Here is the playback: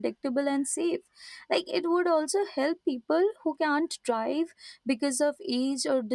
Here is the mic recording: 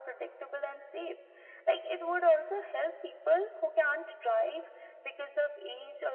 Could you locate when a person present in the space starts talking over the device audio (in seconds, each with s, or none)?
none